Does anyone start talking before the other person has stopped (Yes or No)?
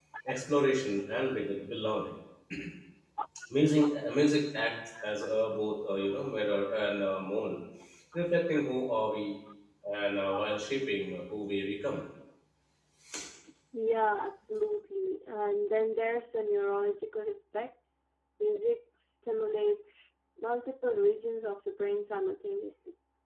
No